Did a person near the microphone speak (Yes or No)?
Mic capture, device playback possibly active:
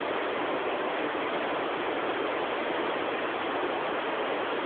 No